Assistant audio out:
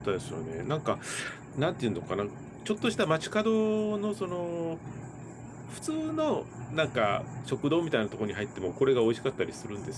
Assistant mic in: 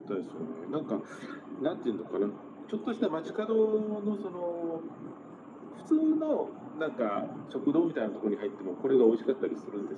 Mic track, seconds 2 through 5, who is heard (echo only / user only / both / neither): echo only